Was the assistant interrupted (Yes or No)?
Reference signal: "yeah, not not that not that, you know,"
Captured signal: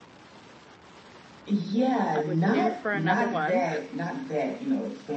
Yes